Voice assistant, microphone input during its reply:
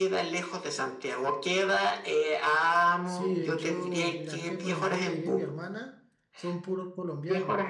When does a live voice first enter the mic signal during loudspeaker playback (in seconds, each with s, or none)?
3.0 s